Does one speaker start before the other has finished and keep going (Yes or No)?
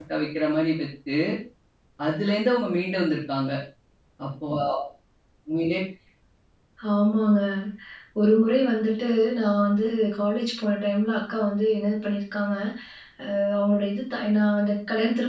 No